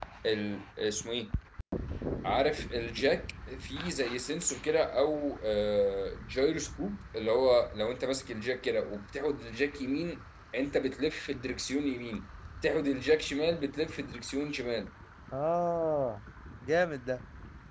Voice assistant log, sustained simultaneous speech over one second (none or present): none